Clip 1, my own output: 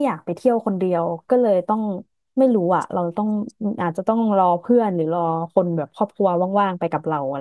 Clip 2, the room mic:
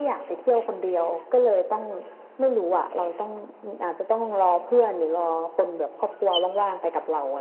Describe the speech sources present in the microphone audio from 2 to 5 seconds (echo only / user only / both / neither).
echo only